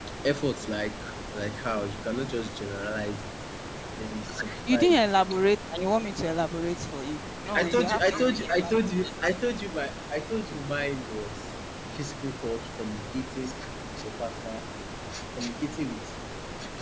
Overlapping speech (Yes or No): Yes